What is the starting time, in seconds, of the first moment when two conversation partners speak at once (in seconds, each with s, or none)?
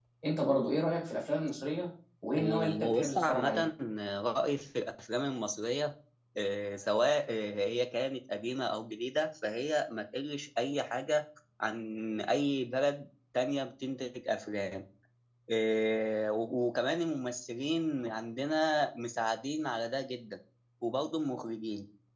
2.4 s